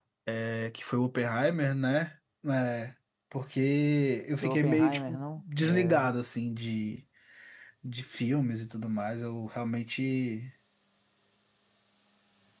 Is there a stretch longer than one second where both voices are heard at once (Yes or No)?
Yes